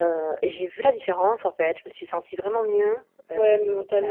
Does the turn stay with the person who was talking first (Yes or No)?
No